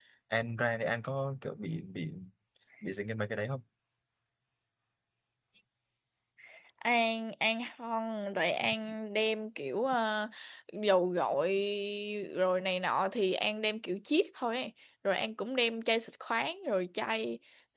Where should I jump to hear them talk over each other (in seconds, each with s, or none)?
none